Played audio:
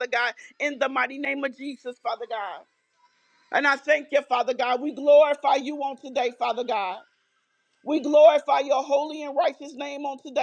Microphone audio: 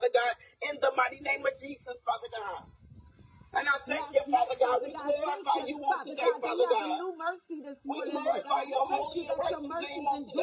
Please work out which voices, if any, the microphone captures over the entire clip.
both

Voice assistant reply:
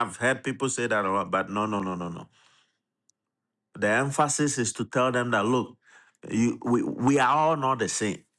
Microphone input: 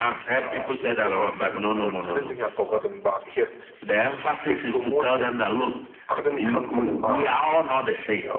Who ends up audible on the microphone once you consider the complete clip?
both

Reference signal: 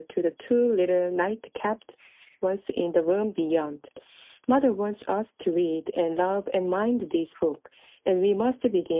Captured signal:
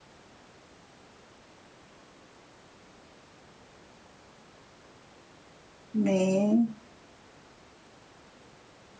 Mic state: user only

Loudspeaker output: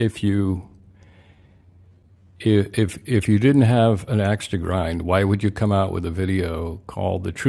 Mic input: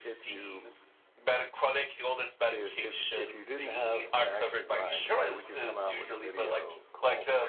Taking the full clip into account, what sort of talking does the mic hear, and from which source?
both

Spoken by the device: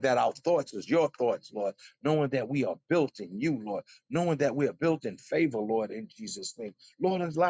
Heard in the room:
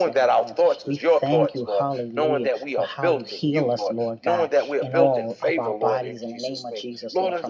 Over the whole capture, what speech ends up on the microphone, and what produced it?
both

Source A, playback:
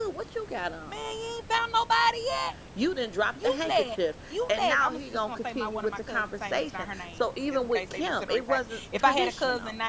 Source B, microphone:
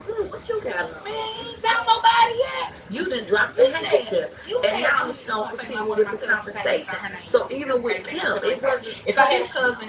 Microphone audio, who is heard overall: both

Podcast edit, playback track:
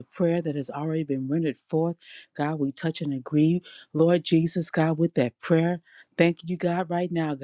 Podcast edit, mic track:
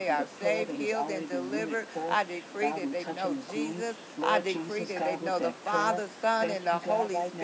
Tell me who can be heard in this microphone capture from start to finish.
both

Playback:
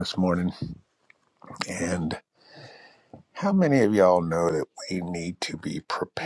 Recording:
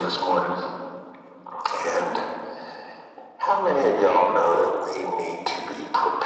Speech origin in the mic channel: echo only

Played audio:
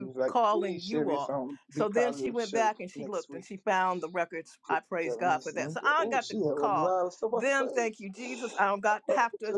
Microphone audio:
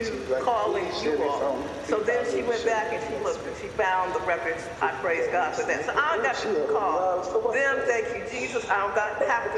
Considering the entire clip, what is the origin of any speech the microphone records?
echo only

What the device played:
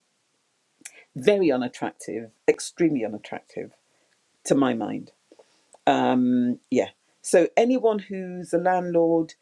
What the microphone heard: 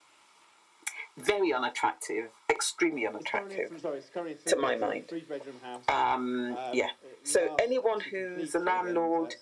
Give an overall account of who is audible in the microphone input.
both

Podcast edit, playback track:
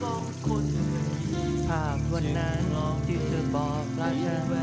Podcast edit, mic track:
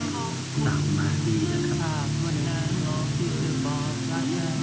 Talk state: both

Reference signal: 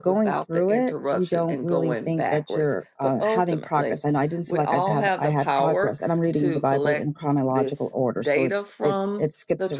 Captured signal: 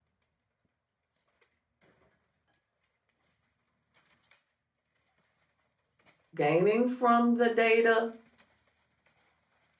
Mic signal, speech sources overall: user only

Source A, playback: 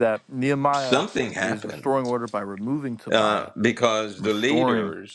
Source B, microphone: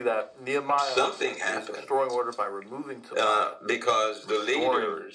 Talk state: echo only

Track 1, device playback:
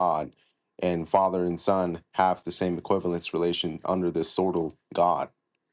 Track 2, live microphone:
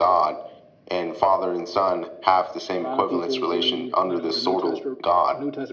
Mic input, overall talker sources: both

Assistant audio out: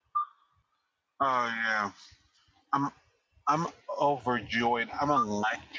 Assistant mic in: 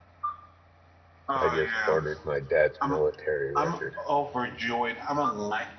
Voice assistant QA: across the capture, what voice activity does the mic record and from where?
both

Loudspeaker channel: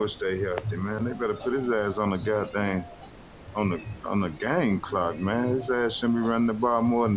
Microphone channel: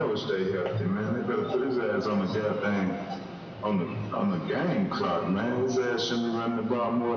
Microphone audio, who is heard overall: echo only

